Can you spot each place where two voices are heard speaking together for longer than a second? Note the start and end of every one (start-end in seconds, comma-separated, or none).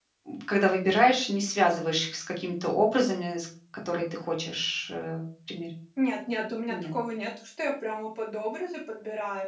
none